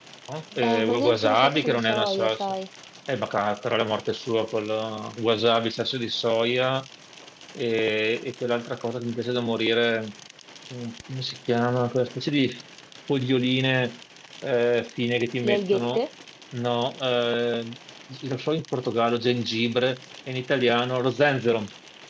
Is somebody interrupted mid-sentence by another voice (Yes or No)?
Yes